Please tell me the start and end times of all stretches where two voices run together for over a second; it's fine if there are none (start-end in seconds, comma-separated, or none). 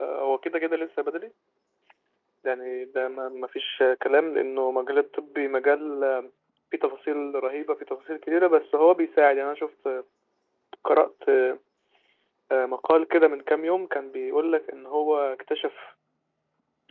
none